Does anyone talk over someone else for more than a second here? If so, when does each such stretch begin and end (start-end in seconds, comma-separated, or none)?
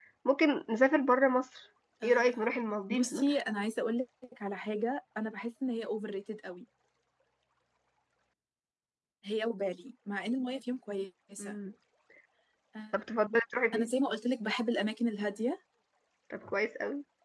2.0-3.4